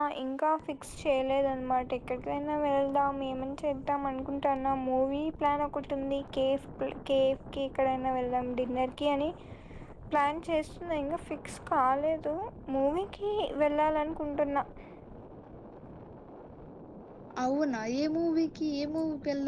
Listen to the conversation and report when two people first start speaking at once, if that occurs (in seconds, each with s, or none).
none